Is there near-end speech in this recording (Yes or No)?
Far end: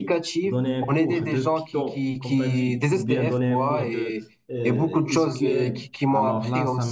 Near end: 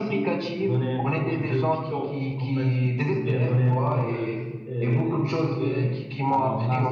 No